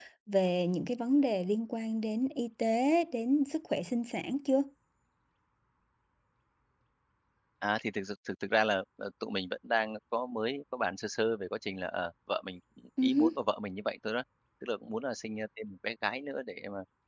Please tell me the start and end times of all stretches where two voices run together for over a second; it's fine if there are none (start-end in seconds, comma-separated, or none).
none